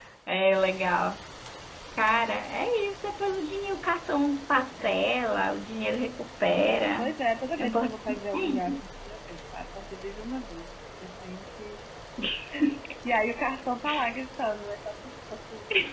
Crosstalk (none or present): present